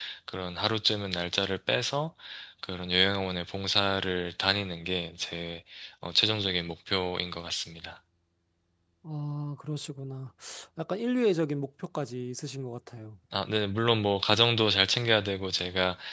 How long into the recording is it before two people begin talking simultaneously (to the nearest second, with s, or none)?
none